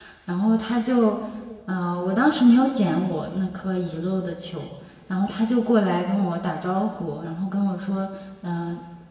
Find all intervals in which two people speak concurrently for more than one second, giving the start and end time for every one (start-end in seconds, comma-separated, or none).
none